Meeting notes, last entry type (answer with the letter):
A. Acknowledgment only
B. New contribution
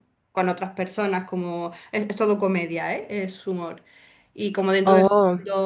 A